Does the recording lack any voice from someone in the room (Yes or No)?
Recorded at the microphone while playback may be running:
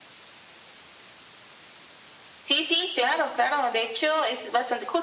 Yes